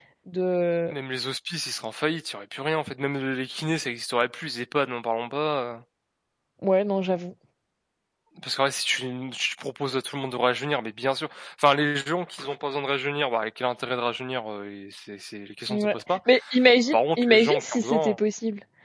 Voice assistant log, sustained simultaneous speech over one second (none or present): present